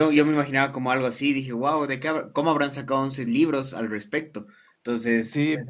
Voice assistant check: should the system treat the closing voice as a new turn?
Yes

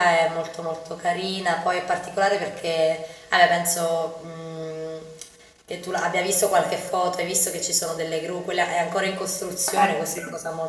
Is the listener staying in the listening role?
Yes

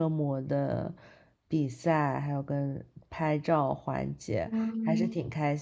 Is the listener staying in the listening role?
Yes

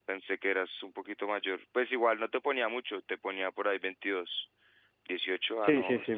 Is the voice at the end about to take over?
Yes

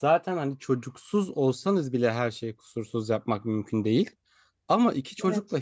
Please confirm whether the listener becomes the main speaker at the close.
No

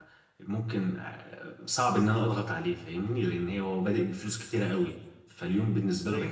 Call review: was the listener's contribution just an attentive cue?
No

